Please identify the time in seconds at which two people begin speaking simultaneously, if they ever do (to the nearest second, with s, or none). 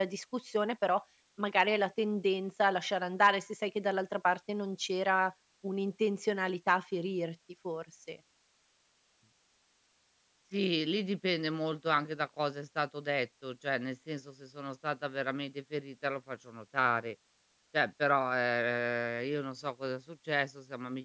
none